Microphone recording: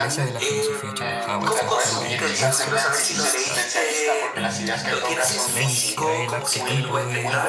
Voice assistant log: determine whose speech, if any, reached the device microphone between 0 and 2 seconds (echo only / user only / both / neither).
both